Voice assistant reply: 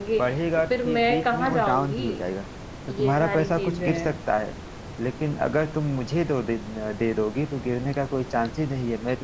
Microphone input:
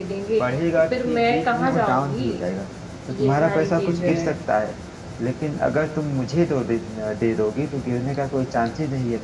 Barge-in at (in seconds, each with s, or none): none